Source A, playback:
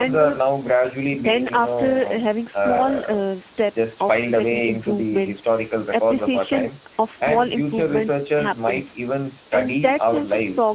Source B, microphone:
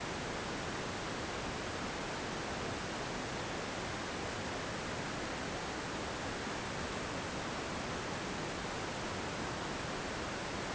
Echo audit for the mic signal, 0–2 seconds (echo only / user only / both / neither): neither